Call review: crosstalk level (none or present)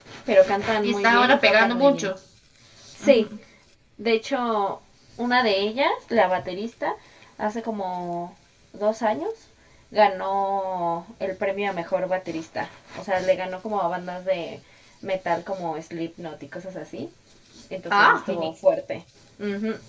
present